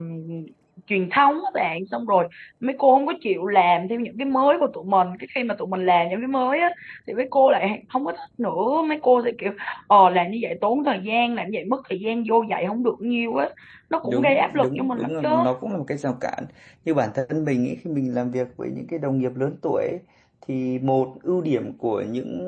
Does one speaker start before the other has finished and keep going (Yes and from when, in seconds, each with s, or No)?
Yes, from 14.0 s